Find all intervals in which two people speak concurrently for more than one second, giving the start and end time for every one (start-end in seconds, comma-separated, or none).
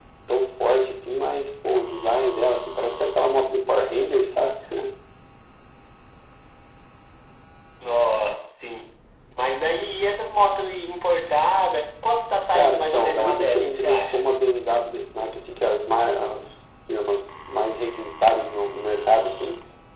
12.5-14.2